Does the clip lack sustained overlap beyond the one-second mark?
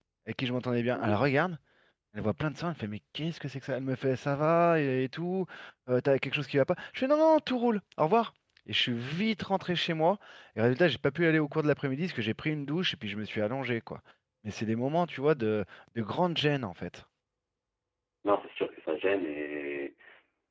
Yes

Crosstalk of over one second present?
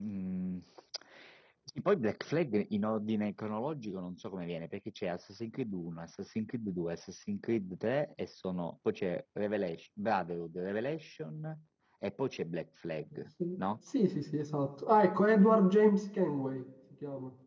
No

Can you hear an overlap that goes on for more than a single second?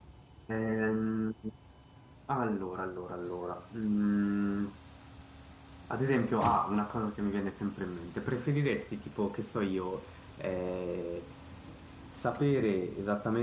No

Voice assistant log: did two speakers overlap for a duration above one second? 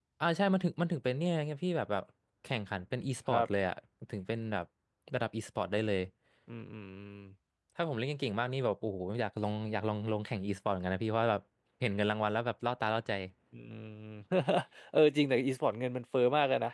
No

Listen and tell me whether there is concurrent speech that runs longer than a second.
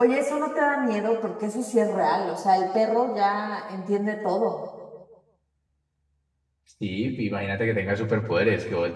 No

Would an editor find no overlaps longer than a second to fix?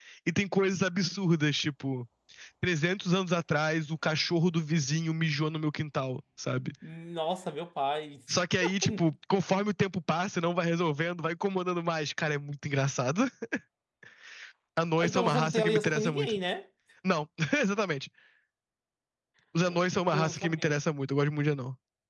No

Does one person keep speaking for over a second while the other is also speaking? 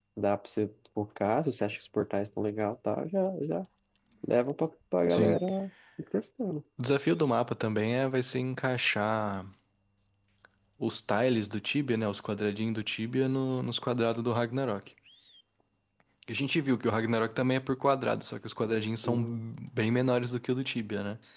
No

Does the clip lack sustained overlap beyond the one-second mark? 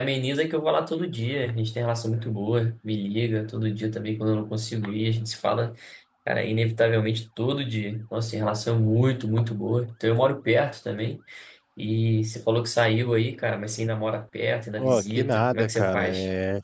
No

